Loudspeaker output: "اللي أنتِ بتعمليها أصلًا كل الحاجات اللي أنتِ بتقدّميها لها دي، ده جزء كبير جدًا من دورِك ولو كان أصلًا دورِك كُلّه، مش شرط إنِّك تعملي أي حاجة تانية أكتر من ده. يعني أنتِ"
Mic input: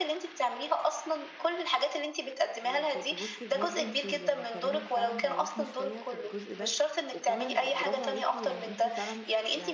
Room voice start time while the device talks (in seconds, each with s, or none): 2.6 s